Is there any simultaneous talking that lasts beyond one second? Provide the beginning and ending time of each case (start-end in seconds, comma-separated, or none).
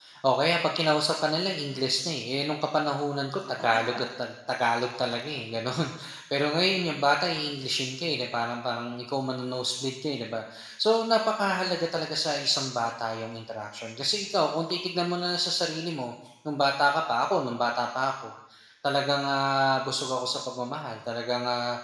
none